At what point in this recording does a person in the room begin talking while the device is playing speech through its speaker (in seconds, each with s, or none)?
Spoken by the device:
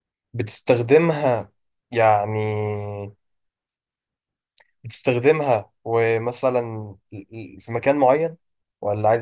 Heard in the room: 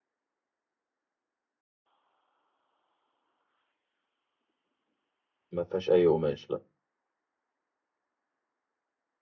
5.5 s